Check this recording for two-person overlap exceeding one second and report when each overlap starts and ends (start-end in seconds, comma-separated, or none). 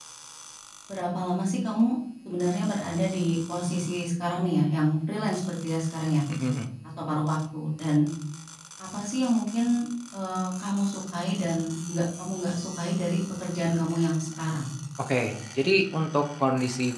none